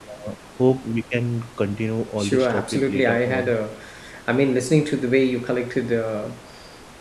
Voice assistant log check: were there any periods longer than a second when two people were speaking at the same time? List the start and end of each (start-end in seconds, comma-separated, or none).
2.2-3.5